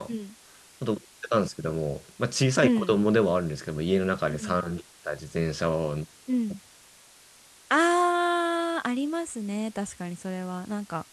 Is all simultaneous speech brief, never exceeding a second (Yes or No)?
Yes